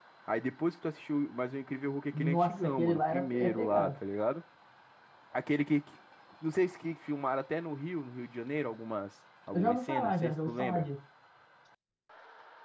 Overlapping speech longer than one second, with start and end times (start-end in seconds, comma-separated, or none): 2.1-4.0, 9.5-10.9